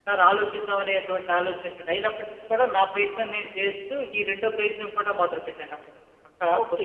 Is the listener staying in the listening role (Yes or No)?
No